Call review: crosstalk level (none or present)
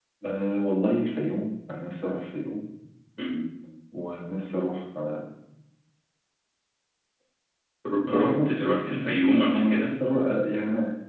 present